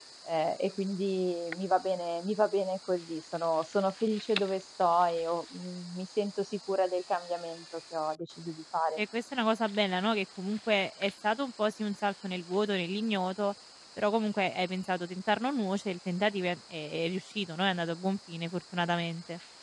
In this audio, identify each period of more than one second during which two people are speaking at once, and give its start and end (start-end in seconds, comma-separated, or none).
none